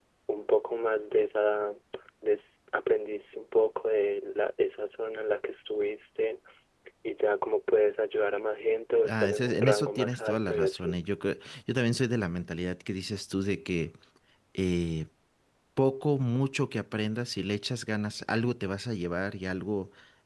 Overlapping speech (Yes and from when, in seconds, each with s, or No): Yes, from 9.1 s